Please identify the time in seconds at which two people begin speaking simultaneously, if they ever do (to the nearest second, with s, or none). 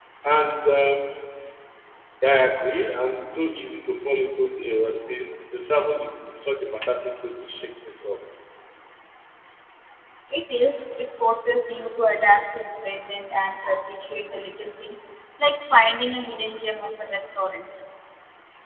none